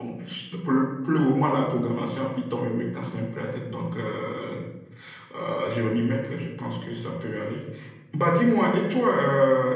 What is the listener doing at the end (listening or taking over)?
listening